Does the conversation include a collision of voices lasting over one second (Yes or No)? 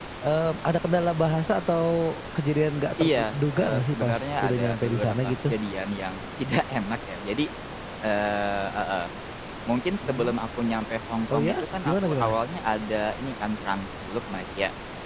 Yes